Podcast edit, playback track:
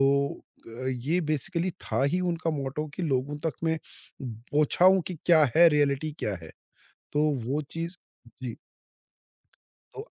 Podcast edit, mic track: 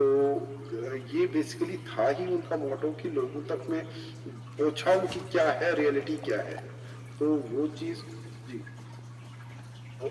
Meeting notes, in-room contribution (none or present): none